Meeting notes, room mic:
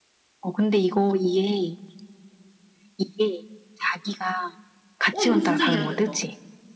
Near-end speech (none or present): present